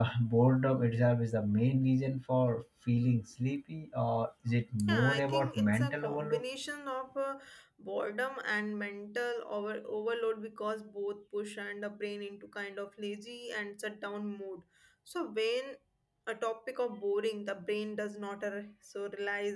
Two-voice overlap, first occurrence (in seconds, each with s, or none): 4.9 s